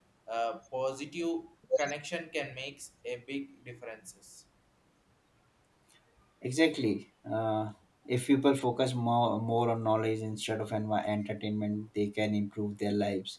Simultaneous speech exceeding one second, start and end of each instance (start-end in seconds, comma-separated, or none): none